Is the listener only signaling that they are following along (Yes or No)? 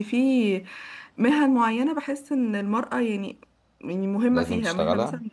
Yes